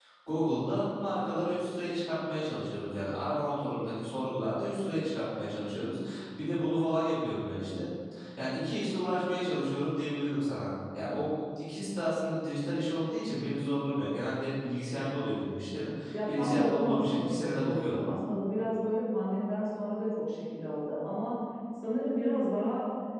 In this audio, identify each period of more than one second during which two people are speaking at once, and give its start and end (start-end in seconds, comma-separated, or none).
16.1-18.0